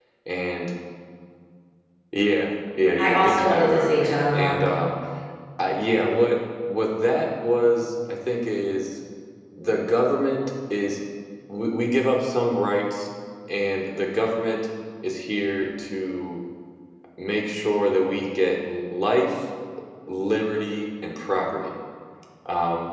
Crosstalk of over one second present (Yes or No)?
Yes